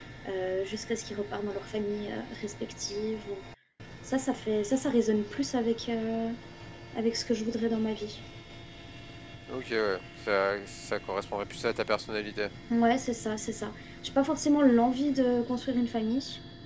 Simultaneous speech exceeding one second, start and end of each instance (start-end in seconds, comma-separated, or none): none